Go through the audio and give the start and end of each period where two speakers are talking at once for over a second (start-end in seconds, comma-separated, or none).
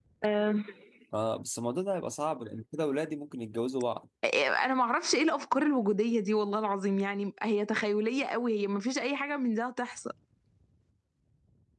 none